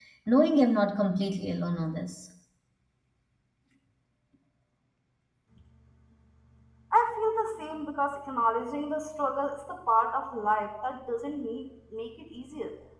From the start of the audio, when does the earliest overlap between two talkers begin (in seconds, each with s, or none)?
none